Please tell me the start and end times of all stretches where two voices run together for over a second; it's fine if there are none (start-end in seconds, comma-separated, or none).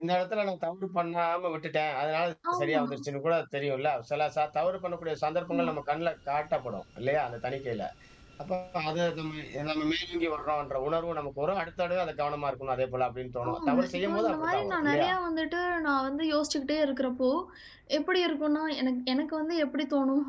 13.5-15.1